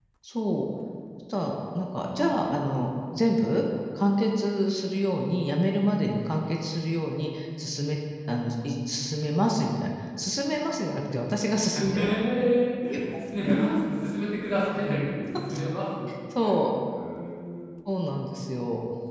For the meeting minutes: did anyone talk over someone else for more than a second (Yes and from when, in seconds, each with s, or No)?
No